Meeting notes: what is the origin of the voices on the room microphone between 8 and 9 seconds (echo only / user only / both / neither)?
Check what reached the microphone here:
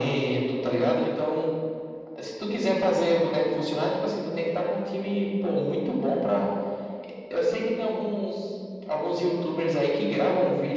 echo only